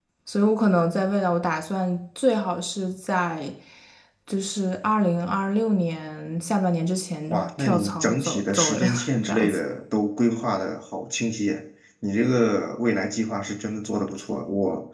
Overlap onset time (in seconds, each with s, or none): 7.3 s